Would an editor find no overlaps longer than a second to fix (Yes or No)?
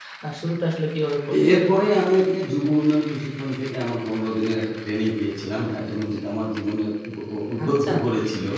Yes